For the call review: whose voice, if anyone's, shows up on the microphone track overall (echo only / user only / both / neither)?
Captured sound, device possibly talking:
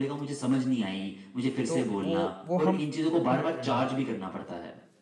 both